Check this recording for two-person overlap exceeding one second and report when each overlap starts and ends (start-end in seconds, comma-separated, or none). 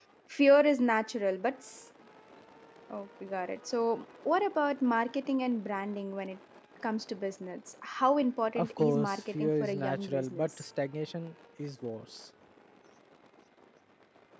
8.6-10.6